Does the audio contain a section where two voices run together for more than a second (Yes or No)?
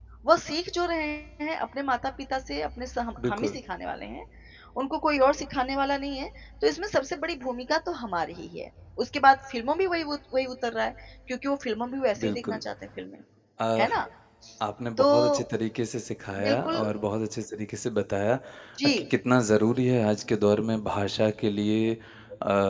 No